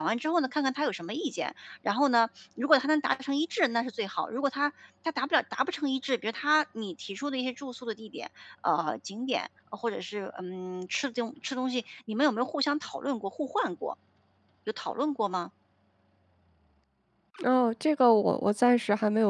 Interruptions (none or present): none